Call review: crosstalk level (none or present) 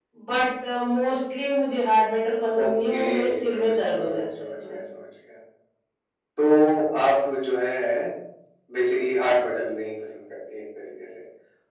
present